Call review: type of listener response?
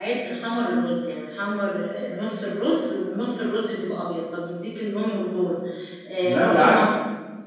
listening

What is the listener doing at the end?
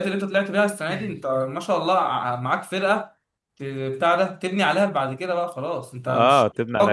taking over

